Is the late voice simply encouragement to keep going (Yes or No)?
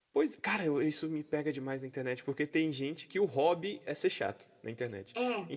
Yes